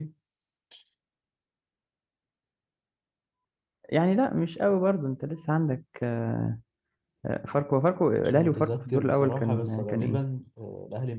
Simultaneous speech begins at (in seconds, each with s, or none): 8.2 s